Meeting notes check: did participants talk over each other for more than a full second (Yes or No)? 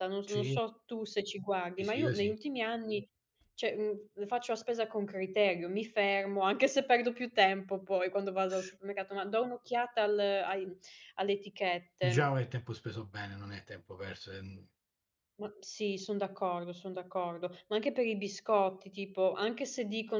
No